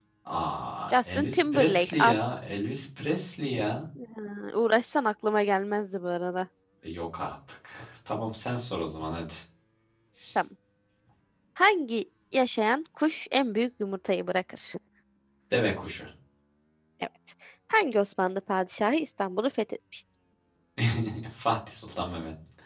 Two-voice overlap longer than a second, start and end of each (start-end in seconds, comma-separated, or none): 0.9-2.2